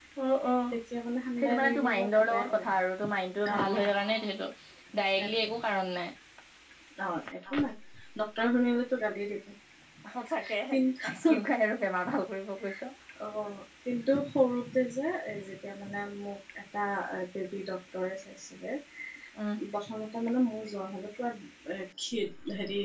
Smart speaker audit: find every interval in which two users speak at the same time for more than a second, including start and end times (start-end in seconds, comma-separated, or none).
1.4-2.6